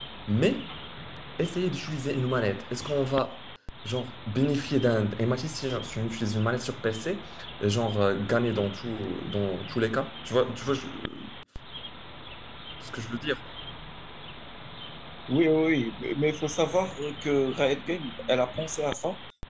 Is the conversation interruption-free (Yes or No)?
Yes